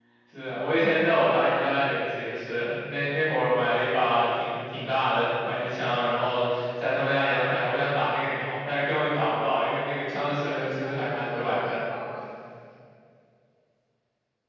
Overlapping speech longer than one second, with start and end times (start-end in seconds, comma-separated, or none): 10.4-11.8